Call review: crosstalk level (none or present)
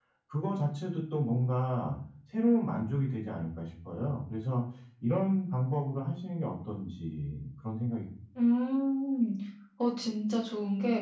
none